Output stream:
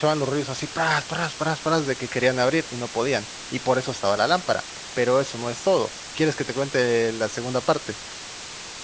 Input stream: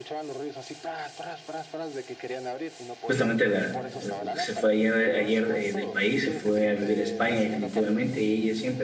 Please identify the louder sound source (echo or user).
user